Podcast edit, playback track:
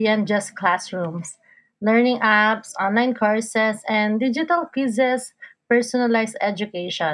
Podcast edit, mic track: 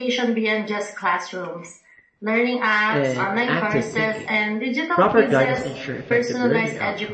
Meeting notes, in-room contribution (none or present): present